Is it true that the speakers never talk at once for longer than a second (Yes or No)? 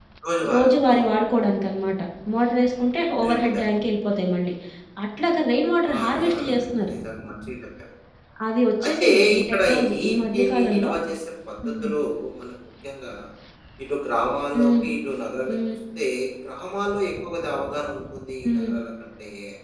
No